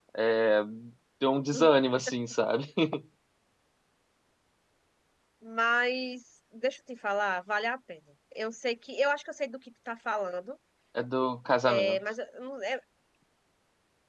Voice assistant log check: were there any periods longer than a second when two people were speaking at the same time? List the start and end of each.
none

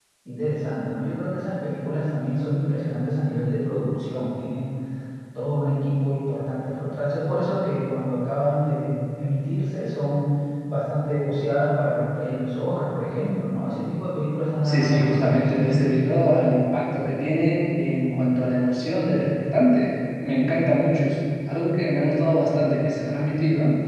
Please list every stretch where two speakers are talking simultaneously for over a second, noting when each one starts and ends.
14.6-15.9

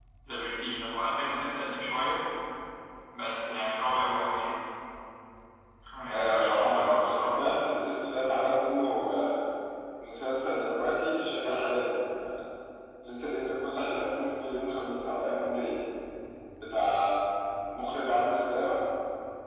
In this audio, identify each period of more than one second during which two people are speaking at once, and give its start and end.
6.1-7.4

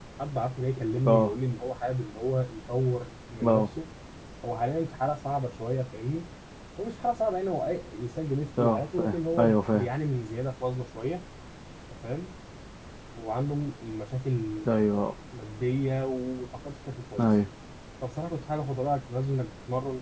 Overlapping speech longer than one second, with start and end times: 8.6-9.9

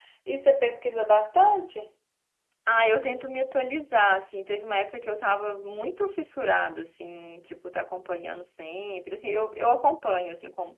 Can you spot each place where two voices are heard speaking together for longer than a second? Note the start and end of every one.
none

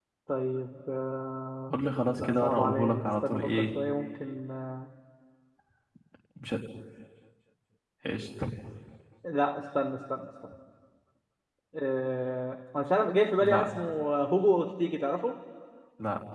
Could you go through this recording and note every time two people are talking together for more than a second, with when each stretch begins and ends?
2.2-3.7

